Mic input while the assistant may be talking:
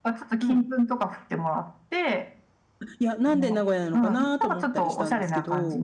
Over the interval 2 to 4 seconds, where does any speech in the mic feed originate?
both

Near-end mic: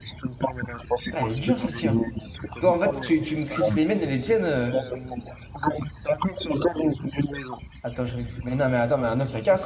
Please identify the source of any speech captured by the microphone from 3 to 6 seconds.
both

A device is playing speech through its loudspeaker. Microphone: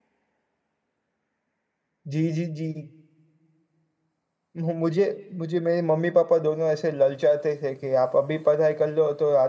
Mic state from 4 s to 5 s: user only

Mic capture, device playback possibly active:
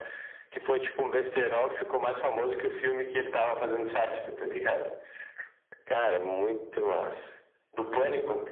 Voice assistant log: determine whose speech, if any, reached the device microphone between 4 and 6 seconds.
echo only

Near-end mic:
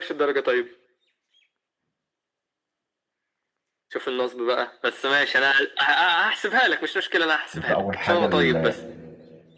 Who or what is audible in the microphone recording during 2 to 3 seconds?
neither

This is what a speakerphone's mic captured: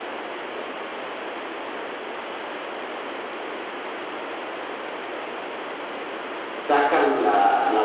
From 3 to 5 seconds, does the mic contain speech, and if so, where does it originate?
neither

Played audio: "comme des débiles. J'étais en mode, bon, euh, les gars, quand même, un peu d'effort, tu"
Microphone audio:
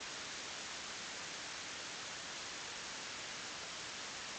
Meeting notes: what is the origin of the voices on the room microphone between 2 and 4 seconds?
neither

